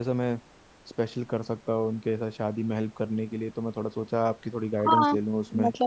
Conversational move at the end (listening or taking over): taking over